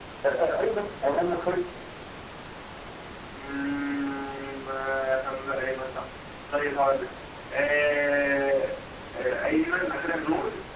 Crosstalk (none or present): none